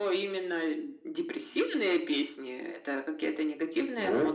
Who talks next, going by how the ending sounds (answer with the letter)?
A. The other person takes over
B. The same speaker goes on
A